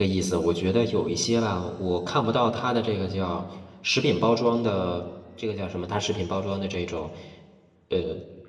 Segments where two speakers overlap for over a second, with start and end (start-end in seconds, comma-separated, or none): none